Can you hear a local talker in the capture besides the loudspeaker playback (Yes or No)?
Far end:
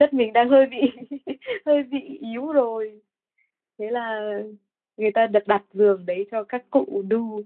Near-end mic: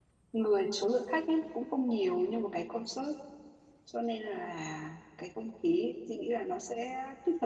Yes